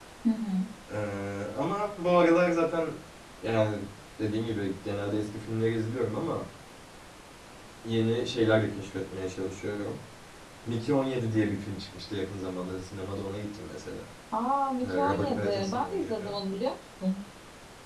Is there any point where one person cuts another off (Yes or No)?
Yes